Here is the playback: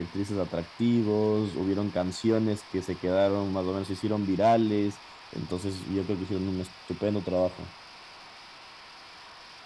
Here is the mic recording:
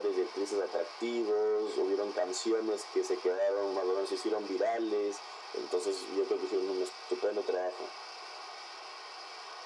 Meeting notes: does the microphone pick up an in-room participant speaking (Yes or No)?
No